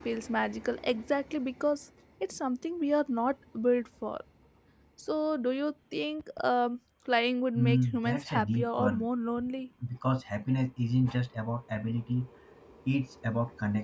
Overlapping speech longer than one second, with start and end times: 7.6-9.1

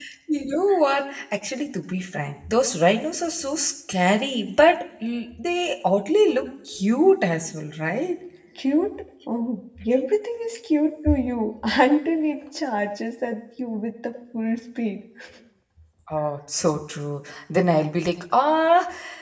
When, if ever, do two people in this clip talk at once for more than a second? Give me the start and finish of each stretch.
none

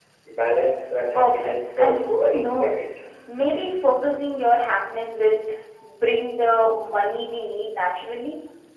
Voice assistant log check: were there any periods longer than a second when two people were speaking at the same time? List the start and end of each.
1.1-2.8

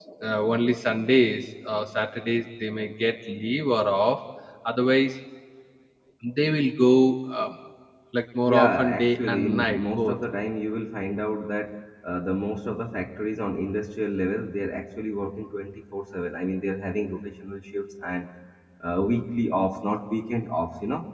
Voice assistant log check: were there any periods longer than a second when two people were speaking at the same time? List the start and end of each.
8.5-10.2

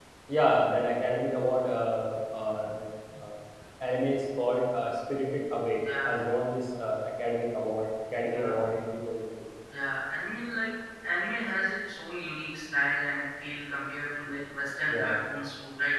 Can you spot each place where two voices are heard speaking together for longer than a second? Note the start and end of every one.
none

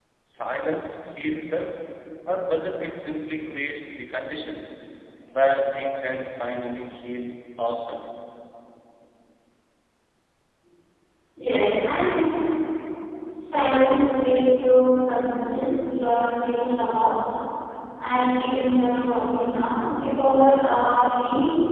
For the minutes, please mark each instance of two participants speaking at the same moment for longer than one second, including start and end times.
none

